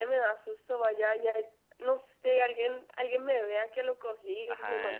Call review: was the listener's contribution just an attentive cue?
No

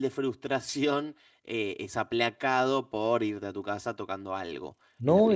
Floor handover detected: Yes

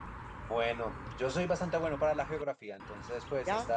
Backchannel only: Yes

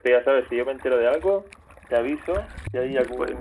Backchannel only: Yes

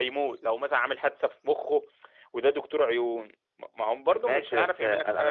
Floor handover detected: Yes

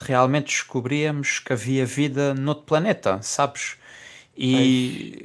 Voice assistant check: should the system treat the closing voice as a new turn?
No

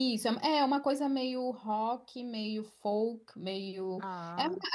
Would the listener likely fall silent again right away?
Yes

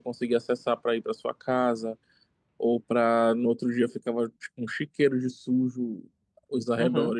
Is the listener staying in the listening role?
Yes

